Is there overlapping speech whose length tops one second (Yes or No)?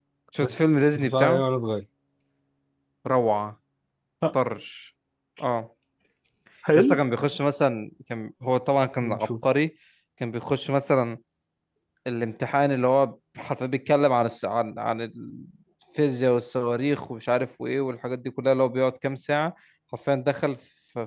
No